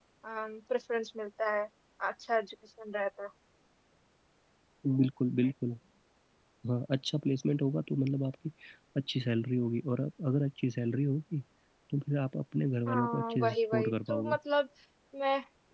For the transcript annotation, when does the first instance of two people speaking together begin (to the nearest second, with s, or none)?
13 s